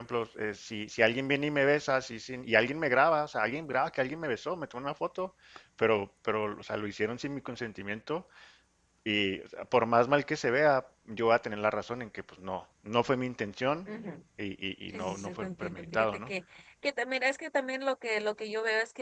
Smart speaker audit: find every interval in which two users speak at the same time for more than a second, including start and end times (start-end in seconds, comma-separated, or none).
14.9-16.3